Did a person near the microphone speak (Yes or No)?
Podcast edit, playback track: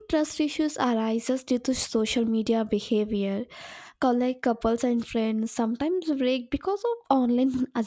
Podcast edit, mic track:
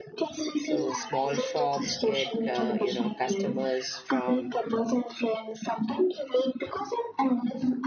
Yes